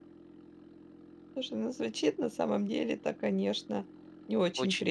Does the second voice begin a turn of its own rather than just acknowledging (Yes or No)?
No